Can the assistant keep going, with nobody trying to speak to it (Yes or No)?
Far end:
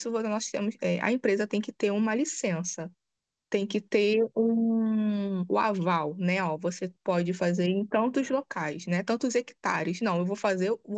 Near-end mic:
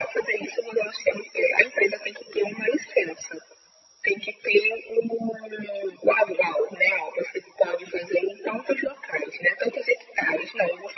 Yes